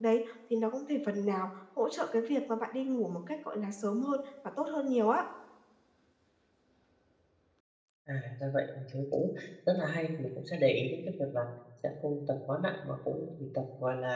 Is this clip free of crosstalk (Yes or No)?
Yes